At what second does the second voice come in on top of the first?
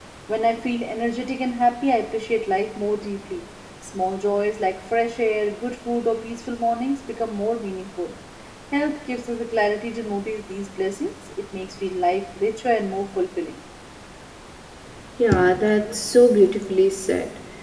none

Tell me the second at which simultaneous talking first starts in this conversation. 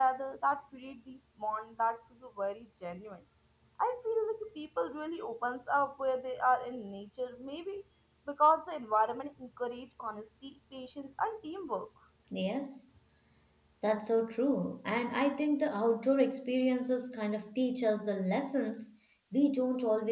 none

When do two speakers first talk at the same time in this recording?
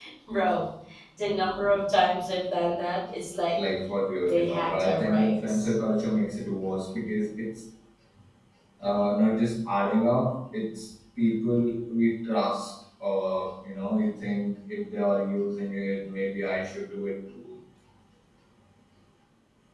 4.2 s

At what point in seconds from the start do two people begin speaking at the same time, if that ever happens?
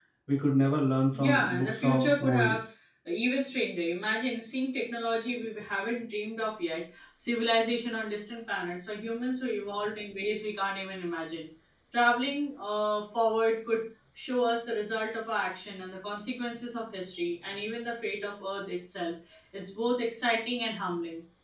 1.1 s

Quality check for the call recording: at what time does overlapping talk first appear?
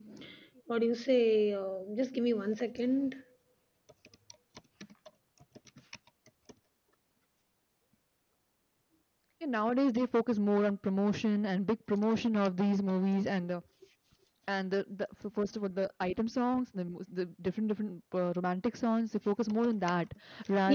none

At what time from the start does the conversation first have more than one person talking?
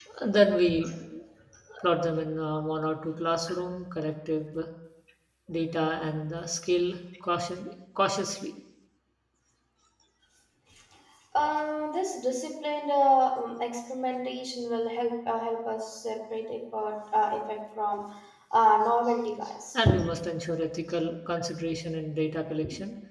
none

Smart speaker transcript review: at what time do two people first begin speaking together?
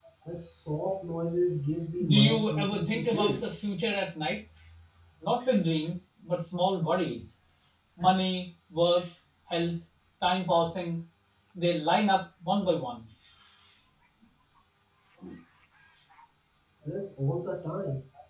2.0 s

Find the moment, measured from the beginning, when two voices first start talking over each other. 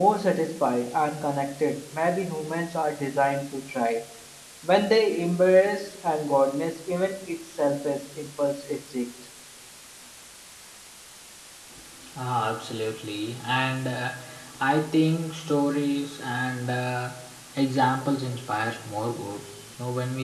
none

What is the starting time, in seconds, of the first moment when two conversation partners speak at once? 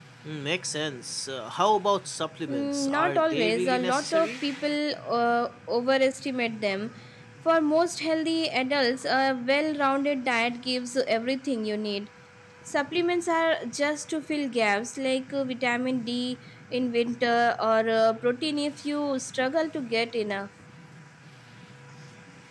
2.5 s

